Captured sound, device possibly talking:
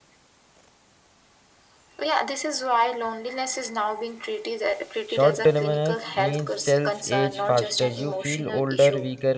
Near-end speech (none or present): present